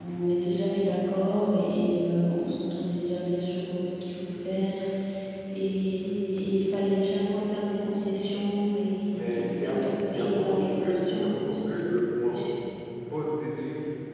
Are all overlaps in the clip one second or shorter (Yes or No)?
No